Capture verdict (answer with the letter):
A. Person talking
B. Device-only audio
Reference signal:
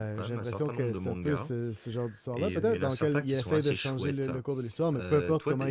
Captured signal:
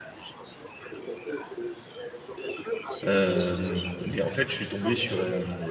A